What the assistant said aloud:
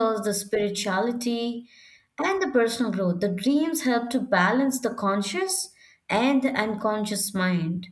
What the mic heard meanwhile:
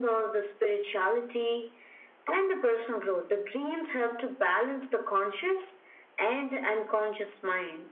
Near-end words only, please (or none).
none